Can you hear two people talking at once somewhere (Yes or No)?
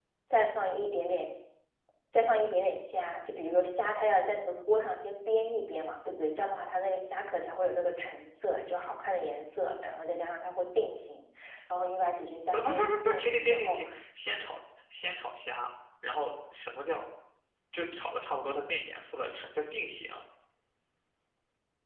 Yes